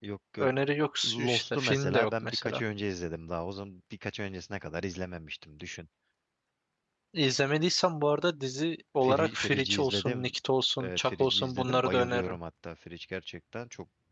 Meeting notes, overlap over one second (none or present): present